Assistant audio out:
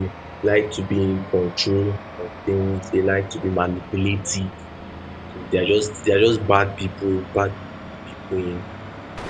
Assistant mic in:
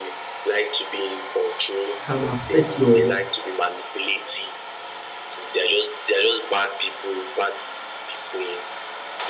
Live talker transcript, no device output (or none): can affect your